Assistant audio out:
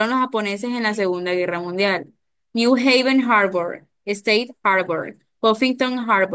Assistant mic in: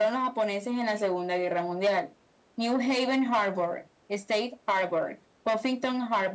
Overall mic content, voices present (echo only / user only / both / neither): echo only